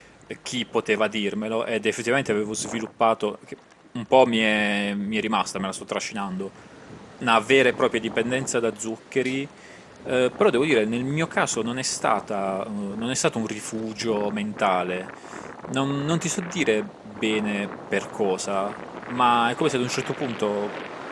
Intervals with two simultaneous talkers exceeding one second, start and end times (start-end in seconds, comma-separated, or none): none